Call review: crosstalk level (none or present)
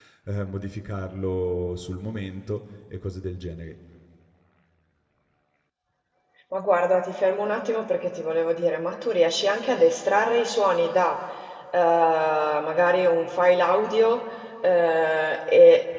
none